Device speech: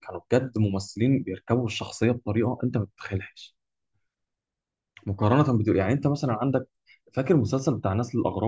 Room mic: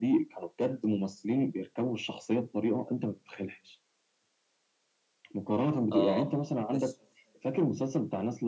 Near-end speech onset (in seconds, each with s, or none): 5.9 s